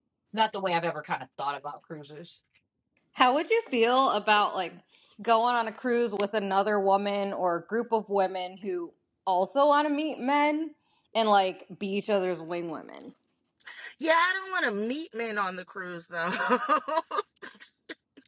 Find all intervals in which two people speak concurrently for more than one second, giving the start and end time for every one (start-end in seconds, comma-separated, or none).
none